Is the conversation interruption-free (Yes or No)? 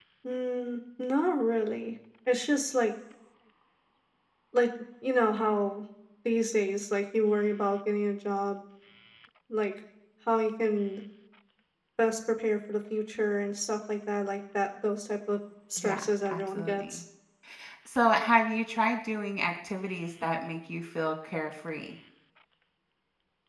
No